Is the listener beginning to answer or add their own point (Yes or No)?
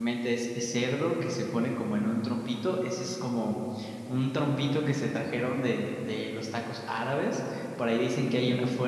No